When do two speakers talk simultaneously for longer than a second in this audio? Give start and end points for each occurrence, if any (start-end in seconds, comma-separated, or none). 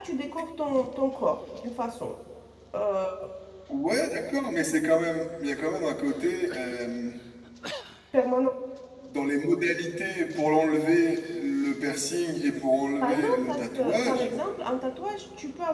13.0-14.3